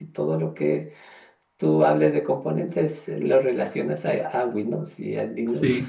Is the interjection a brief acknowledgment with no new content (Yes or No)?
No